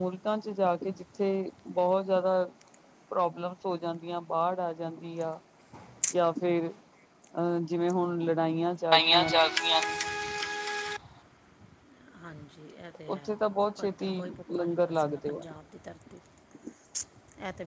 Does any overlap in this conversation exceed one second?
Yes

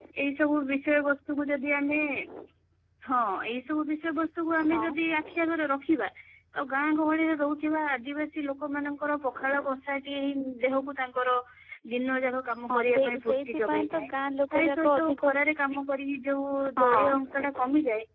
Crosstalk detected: Yes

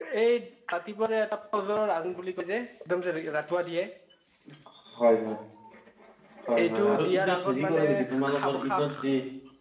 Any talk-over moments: Yes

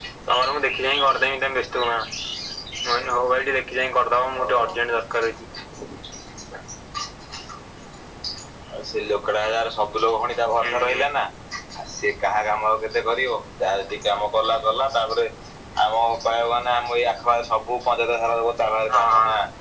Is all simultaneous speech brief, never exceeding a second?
Yes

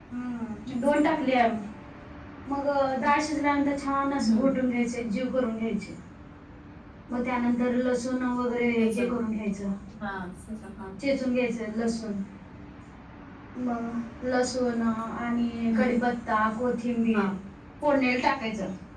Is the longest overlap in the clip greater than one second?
No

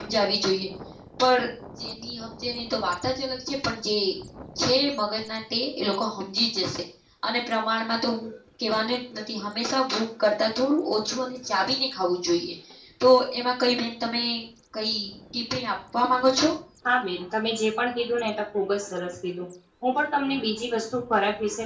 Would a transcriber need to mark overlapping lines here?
No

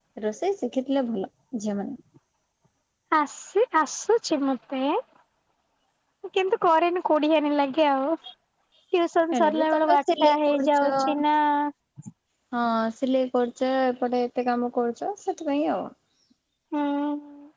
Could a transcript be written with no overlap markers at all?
No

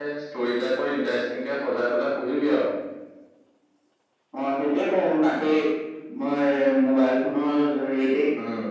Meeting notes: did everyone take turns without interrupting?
Yes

